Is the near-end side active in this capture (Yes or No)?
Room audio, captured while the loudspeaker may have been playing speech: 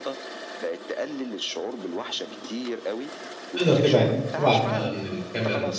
Yes